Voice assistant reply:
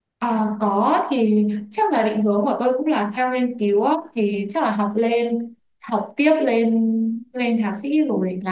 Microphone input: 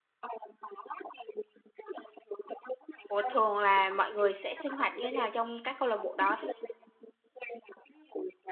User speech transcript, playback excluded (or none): Ủa thường là mọi người sẽ sinh hoạt như thế nào trong các câu lạc bộ đó?